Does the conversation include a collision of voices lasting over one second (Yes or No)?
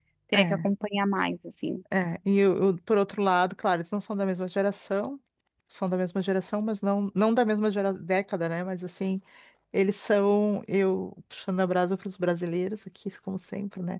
No